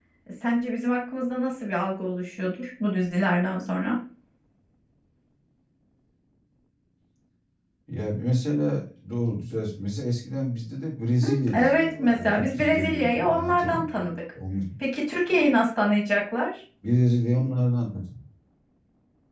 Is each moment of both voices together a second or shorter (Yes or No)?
No